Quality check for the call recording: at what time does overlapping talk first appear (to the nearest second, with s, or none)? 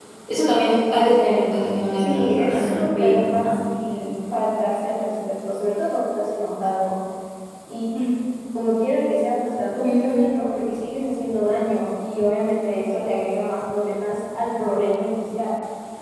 2 s